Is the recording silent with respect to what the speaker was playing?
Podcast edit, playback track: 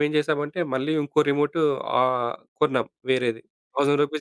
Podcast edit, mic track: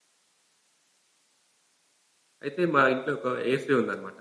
Yes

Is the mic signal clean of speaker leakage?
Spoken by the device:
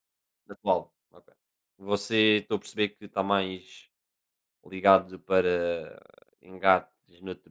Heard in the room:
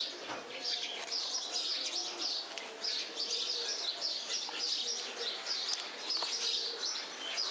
Yes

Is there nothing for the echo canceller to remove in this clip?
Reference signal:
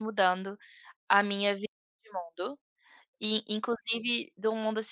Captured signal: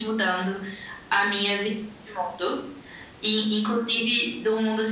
No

